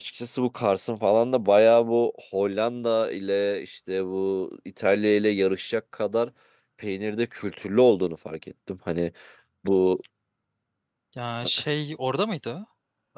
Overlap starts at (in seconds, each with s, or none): none